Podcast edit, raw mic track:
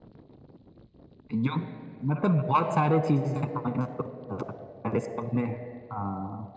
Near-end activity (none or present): none